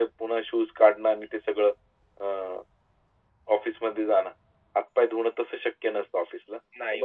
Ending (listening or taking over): listening